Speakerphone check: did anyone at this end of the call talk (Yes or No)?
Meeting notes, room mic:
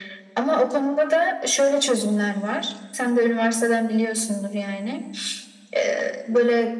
No